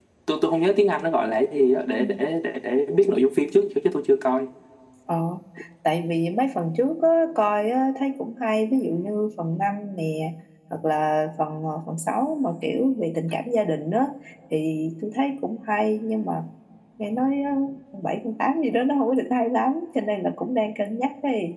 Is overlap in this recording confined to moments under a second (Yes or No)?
Yes